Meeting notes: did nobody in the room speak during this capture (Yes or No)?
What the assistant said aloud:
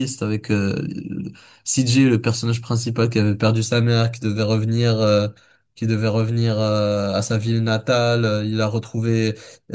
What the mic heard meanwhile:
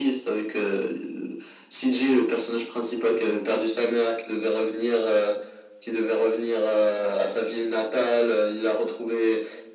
Yes